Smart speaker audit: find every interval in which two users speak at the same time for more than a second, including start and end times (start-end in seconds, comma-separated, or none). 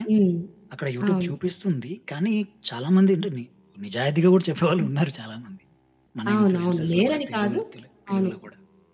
6.3-7.6